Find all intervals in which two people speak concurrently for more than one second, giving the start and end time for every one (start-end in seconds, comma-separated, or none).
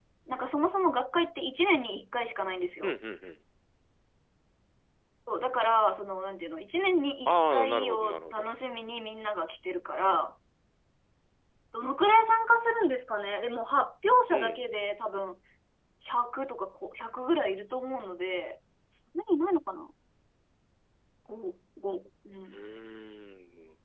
7.3-8.5